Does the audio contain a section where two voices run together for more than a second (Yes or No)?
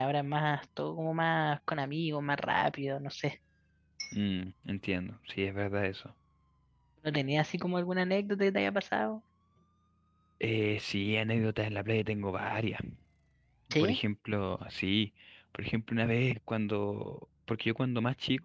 No